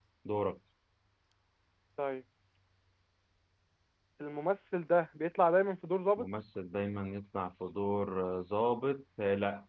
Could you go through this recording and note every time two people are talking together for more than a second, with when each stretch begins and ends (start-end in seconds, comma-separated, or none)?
none